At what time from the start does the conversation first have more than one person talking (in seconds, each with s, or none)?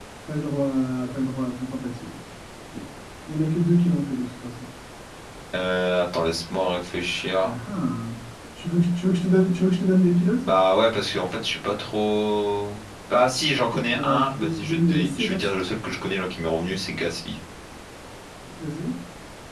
13.9 s